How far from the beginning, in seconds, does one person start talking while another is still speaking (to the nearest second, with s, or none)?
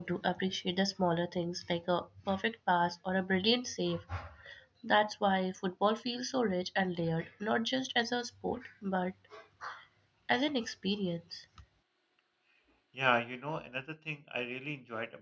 none